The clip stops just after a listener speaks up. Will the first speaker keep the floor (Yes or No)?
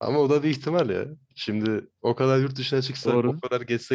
Yes